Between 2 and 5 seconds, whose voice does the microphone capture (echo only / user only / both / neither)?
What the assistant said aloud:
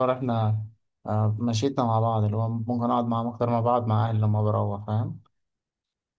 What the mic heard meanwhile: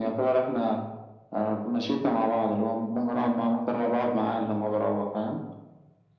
echo only